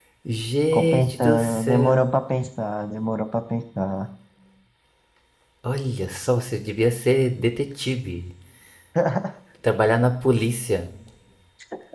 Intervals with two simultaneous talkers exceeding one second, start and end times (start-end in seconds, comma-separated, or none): 0.7-2.0